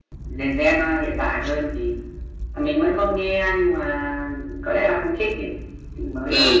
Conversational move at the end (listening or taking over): taking over